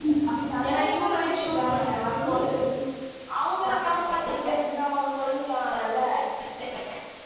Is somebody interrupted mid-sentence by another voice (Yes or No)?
Yes